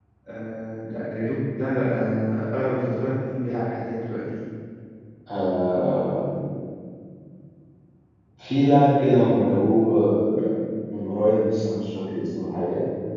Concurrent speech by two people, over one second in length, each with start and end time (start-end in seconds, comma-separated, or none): none